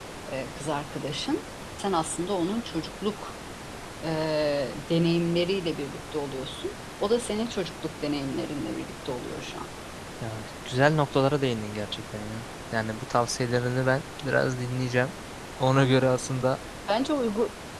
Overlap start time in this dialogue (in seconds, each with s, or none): none